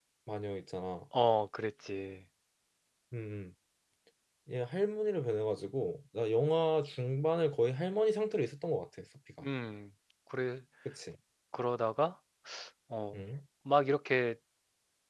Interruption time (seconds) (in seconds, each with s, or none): none